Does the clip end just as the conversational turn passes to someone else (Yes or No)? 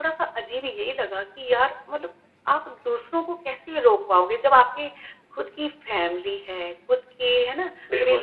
No